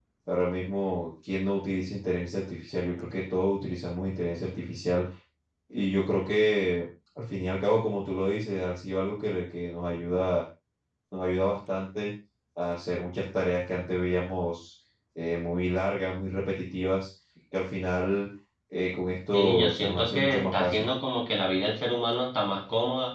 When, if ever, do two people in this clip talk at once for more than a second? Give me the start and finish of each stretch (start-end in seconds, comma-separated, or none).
19.3-20.9